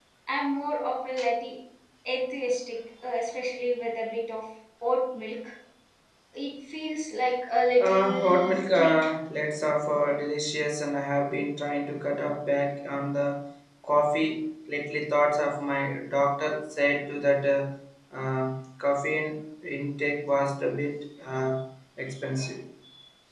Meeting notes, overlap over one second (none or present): present